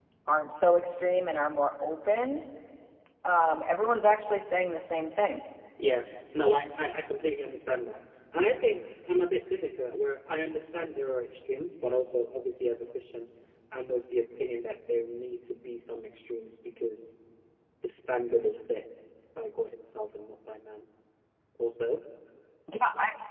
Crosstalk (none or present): none